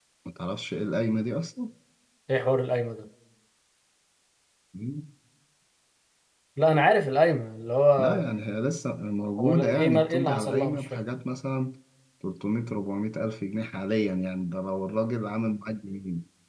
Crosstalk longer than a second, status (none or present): present